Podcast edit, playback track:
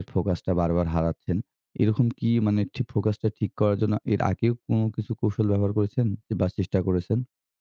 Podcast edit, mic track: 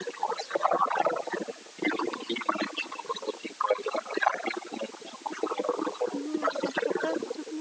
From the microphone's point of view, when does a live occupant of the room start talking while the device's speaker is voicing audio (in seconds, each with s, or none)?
6.2 s